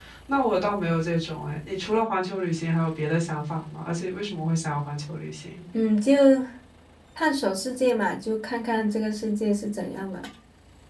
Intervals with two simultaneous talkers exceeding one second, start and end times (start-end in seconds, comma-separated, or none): none